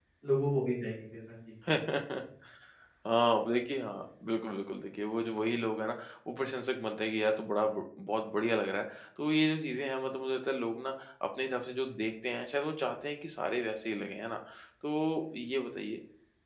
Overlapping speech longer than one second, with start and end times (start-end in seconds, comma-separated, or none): none